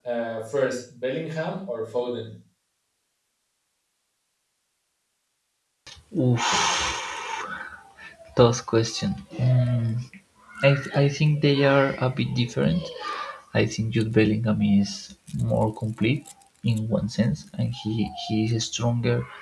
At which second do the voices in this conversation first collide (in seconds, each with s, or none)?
none